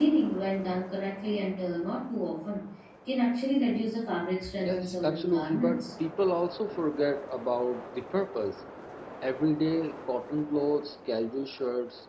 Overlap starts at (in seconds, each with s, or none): 4.6 s